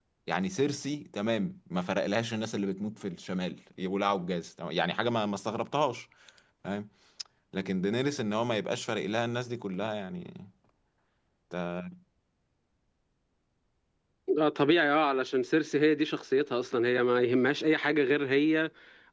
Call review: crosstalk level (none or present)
none